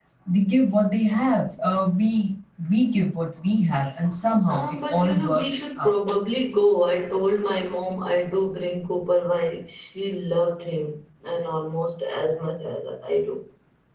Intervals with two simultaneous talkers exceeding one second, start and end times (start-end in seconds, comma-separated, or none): 4.5-5.9